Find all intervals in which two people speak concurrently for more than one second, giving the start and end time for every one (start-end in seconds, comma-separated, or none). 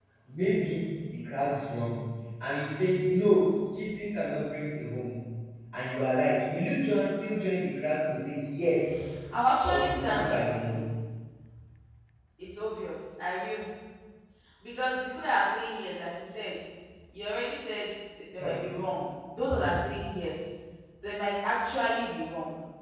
9.6-10.8